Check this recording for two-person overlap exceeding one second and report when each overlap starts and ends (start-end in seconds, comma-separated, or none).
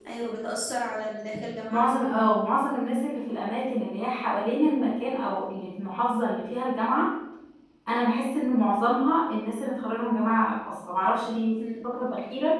none